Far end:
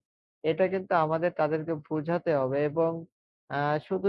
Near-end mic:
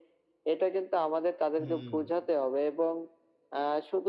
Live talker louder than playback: No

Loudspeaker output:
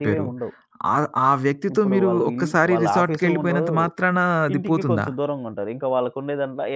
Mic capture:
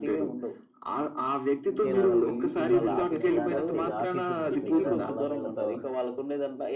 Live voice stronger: No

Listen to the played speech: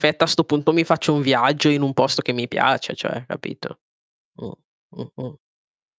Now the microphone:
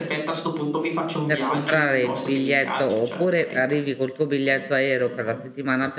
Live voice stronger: Yes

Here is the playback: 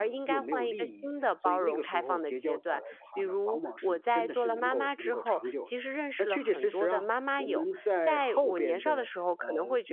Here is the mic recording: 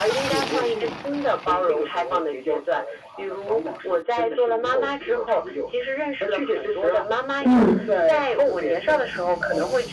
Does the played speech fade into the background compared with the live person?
Yes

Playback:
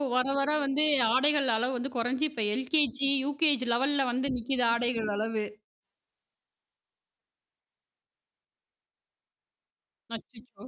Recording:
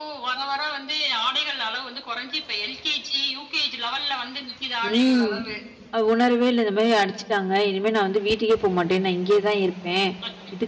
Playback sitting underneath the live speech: Yes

